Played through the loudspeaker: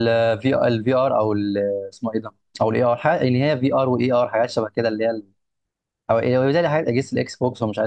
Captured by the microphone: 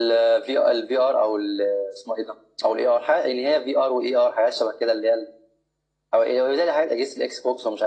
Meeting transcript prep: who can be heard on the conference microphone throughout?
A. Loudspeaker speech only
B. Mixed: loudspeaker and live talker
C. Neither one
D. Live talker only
A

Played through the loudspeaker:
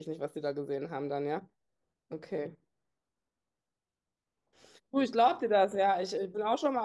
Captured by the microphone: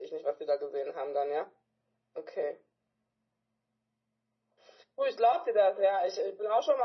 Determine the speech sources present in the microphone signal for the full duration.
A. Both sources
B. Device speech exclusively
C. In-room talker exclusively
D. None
B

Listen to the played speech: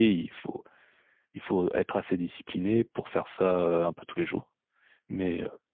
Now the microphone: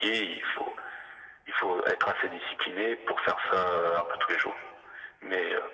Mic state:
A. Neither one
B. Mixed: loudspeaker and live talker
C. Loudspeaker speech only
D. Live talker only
C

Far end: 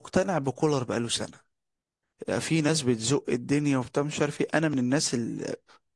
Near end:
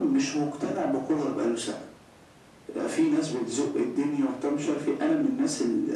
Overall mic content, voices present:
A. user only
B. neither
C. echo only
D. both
C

